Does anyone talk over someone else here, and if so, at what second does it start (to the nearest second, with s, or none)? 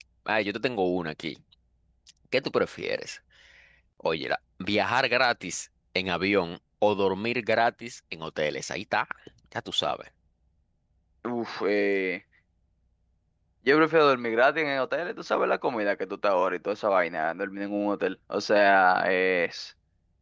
none